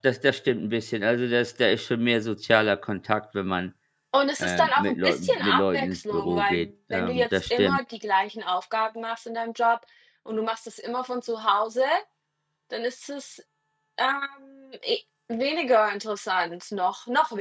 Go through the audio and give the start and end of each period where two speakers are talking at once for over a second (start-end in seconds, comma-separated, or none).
4.4-7.8